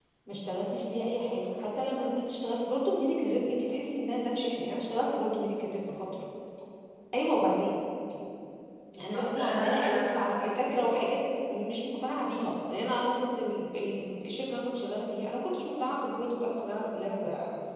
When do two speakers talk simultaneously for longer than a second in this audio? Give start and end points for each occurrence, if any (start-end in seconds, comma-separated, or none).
9.0-11.0